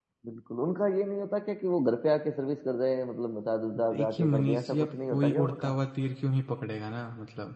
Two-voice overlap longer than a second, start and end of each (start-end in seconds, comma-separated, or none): 3.9-5.7